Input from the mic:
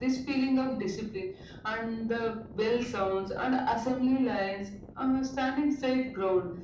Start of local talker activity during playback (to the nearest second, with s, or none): none